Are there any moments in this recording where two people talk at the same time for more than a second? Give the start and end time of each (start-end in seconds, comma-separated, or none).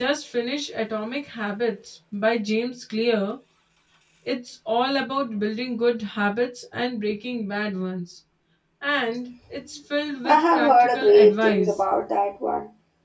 10.2-11.7